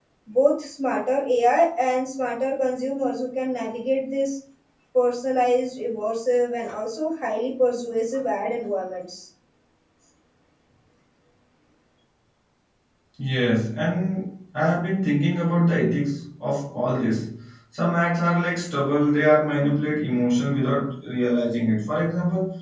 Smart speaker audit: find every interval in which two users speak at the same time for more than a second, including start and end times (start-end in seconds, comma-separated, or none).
none